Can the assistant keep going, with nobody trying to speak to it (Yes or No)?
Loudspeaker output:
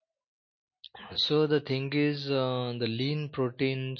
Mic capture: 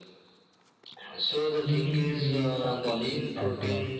No